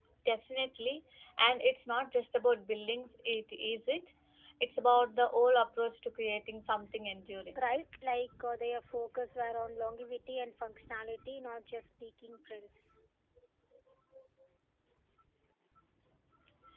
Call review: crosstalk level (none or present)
none